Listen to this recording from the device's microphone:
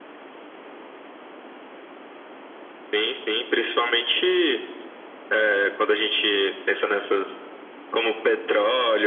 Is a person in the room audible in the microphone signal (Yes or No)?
No